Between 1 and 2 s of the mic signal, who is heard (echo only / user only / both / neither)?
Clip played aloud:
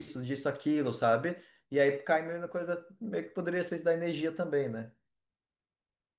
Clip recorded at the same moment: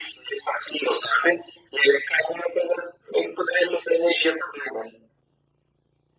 echo only